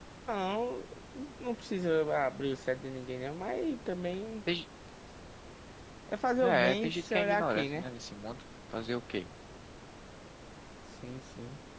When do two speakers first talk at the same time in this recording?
6.4 s

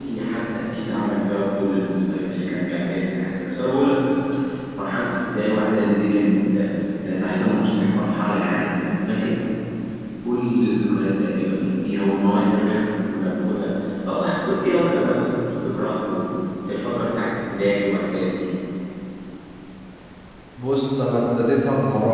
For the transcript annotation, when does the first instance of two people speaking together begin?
none

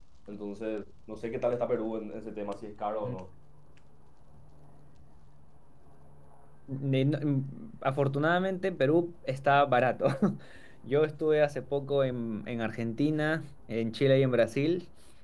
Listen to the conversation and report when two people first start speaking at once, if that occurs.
none

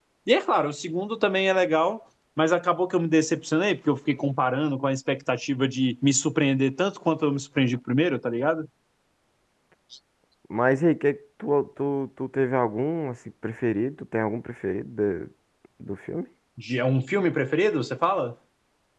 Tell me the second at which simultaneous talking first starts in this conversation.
none

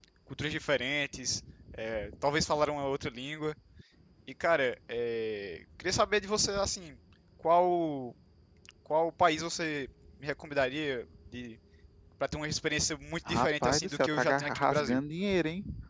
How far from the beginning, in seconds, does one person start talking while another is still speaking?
13.3 s

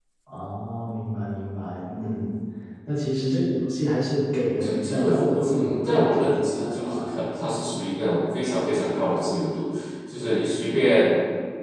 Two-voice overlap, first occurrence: 4.6 s

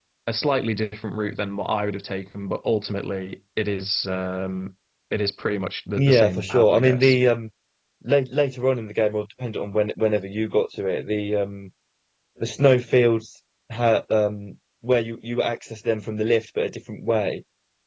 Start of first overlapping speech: 6.0 s

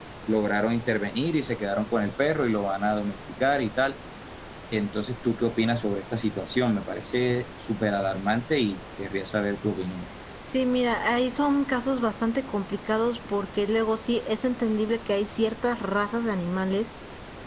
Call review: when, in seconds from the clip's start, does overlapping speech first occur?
none

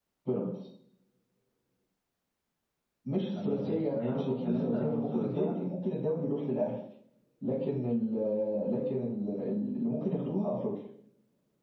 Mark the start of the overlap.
3.4 s

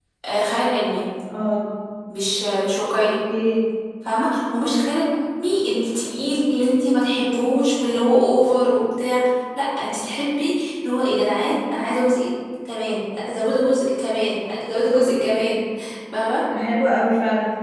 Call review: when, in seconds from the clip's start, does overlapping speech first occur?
none

